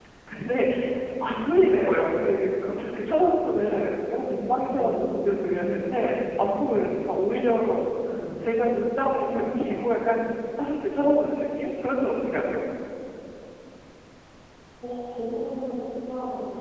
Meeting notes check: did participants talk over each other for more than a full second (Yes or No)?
Yes